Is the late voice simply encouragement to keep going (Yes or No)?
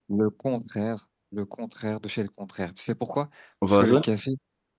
Yes